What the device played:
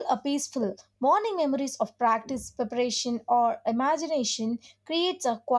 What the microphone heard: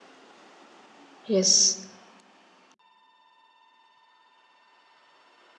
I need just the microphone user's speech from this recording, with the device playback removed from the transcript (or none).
Yes,